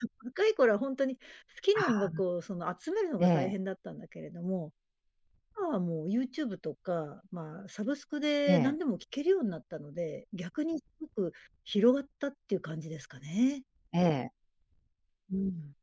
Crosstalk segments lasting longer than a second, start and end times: none

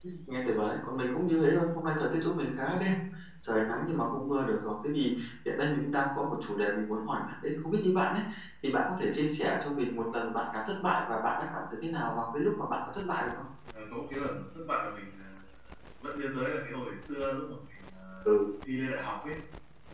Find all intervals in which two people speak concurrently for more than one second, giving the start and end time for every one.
none

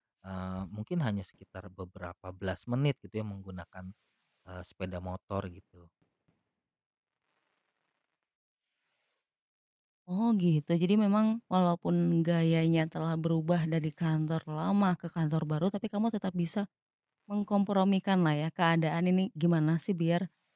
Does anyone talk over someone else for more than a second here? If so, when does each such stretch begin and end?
none

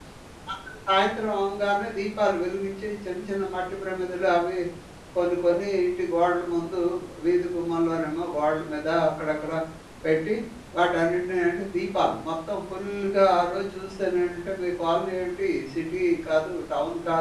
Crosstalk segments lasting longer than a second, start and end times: none

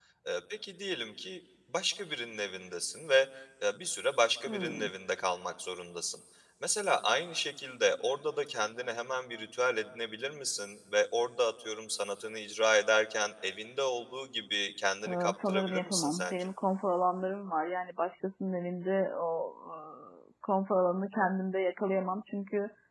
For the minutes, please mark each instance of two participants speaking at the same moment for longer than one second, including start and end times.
15.1-16.5

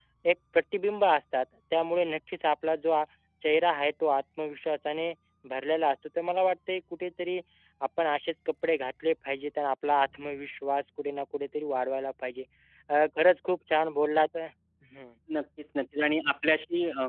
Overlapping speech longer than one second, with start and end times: none

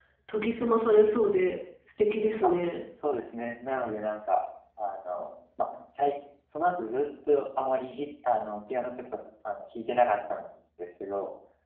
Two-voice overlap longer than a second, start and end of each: none

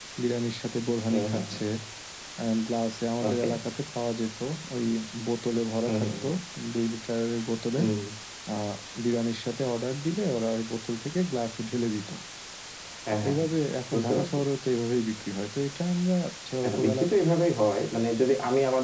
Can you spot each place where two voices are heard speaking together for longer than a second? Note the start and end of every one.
none

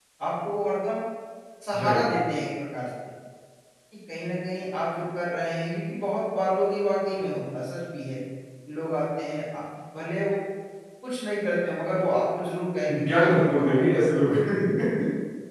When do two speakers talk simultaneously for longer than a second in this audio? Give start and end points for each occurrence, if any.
12.9-14.3

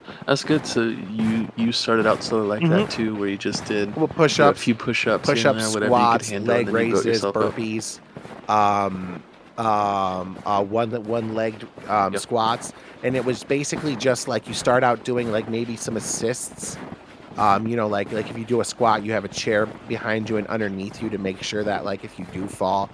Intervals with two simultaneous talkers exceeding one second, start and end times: 5.2-7.5

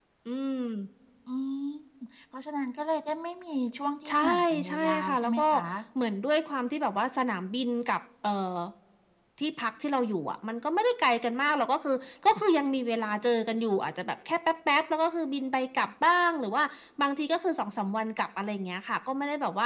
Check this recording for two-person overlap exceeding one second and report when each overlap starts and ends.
4.1-5.4

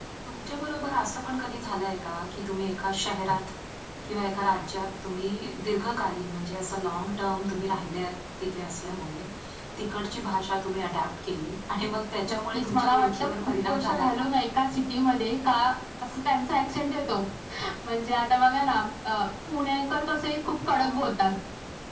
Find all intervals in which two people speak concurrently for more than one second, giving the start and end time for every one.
12.3-14.3

